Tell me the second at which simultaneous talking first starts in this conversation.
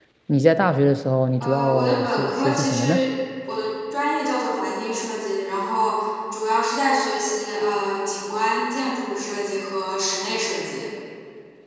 1 s

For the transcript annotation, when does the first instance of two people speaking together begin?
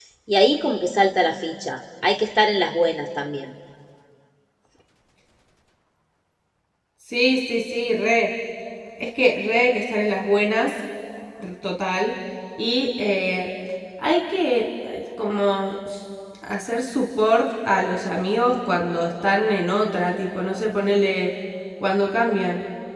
none

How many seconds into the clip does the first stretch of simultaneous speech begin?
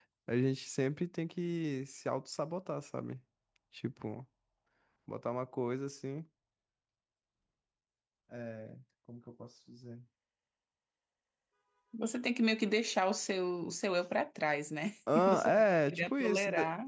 15 s

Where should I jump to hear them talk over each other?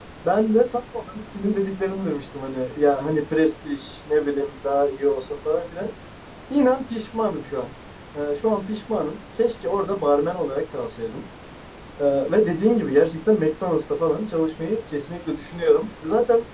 none

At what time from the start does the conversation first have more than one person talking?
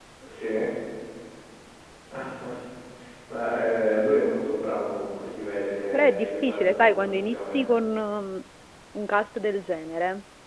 6 s

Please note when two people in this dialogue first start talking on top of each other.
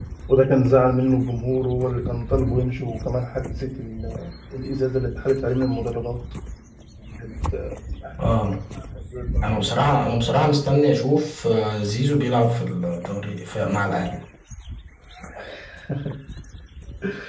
none

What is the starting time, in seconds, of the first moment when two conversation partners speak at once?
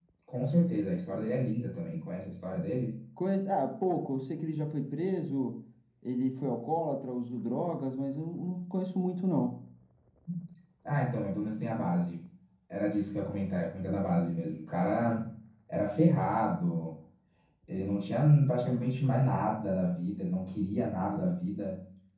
none

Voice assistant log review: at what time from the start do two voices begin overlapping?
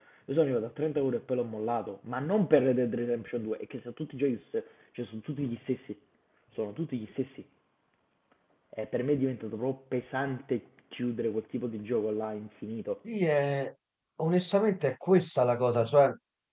none

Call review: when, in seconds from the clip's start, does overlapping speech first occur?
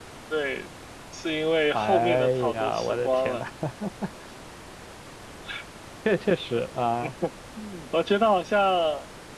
2 s

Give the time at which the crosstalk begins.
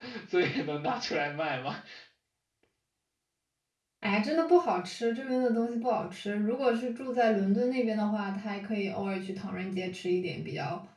none

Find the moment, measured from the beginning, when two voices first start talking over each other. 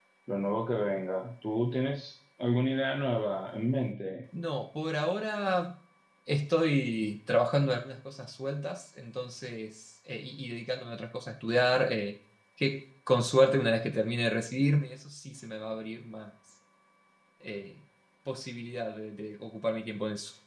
none

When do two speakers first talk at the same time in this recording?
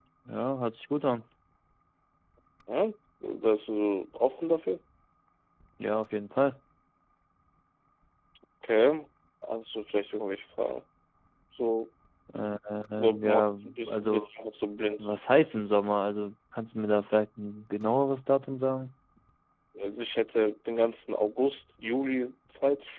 13 s

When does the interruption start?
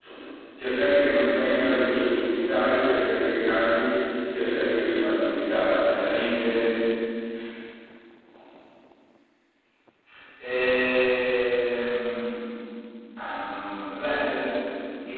none

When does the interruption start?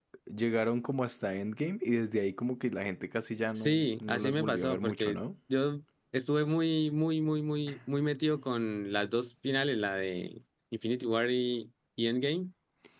4 s

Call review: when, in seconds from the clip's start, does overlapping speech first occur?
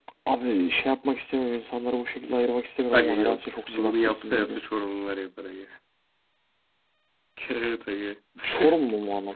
3 s

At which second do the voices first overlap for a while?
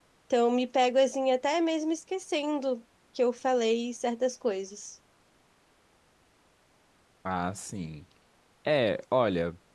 none

